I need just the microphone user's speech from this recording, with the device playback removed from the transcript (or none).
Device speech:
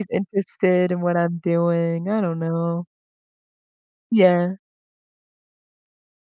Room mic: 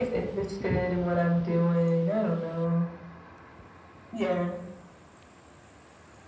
none